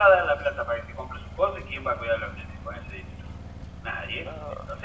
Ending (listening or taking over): listening